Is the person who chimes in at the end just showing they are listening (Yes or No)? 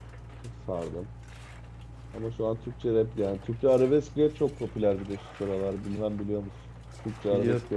No